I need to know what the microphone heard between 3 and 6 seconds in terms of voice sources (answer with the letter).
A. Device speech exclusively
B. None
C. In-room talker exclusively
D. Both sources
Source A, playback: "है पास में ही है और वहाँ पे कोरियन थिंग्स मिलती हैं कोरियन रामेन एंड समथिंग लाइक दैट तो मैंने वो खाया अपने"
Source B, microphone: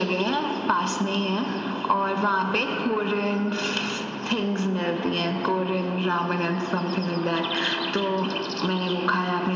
A